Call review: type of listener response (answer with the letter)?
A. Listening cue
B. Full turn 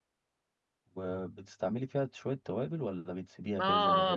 B